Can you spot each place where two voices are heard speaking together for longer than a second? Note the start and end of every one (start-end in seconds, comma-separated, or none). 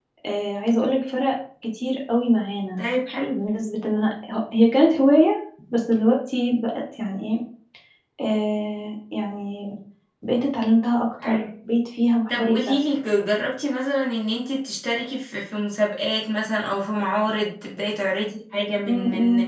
none